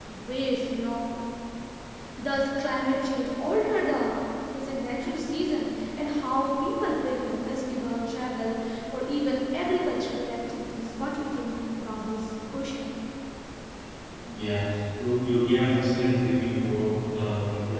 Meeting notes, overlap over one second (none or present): none